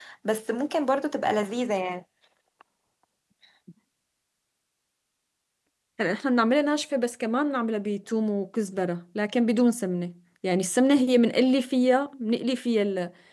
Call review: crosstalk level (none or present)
none